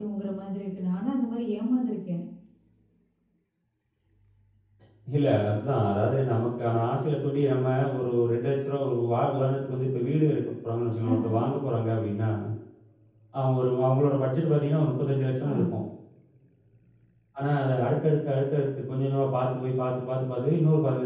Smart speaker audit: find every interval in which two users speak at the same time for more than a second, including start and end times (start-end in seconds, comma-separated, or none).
none